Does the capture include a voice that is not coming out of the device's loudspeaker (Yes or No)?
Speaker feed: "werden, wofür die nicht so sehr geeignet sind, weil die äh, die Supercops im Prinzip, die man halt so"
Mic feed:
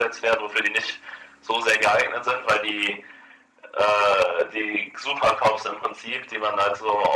No